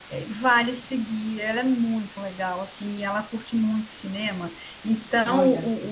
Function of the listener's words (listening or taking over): listening